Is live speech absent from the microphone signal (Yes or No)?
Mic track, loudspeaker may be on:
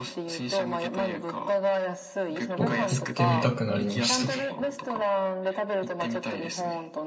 No